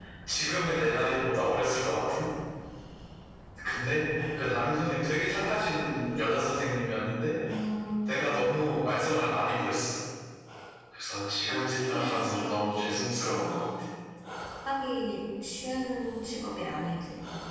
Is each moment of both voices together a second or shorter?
No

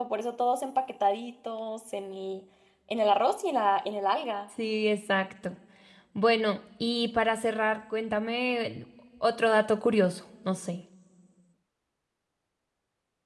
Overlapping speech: No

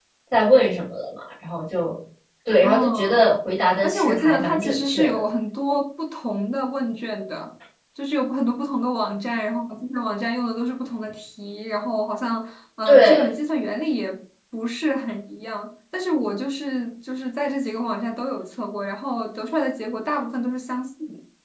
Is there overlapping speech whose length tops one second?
Yes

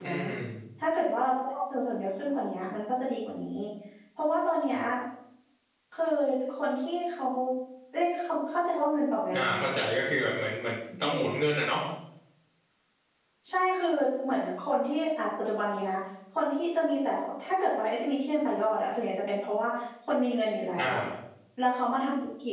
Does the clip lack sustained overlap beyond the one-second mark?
Yes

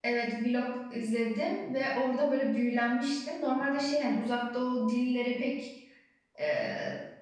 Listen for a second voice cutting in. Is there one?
No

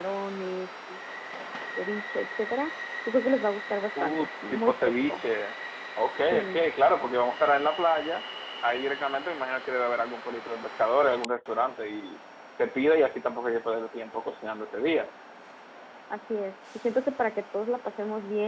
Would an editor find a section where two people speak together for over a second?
Yes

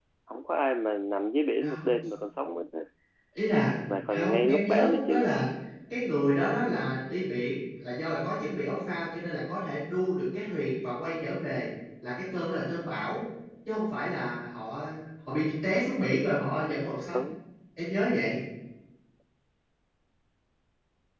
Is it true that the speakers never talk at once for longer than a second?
No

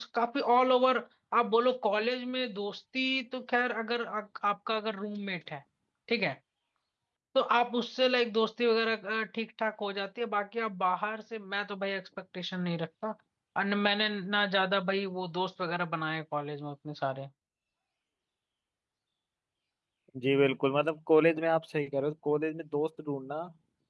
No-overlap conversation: Yes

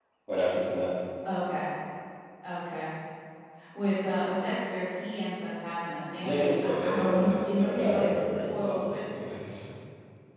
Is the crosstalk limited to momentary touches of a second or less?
No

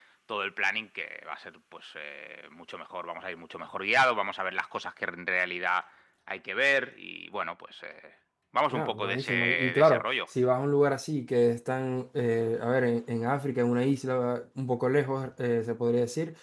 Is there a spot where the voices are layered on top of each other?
Yes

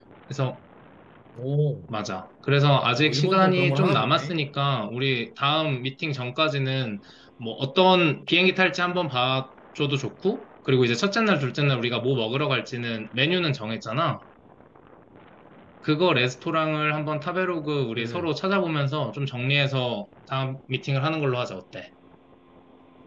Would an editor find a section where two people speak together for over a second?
Yes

